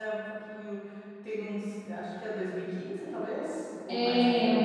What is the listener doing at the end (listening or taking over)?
taking over